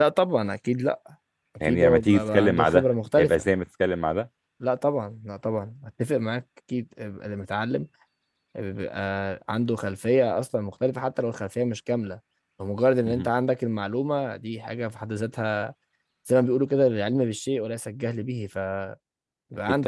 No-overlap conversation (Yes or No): No